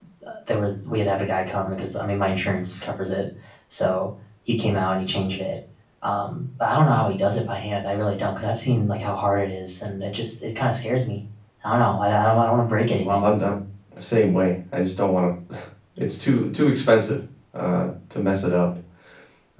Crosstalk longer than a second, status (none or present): none